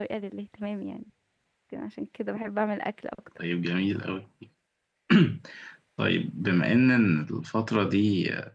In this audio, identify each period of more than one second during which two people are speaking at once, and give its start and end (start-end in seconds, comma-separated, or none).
none